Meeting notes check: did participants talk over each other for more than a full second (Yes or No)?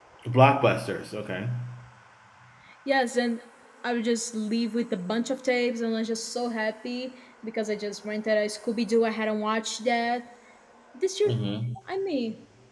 No